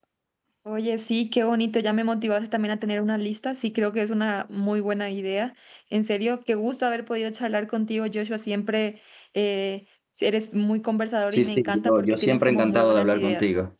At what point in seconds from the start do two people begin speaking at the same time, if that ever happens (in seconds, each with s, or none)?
11.3 s